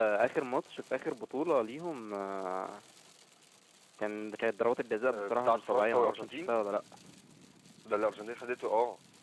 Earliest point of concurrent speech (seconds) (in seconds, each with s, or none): 5.1 s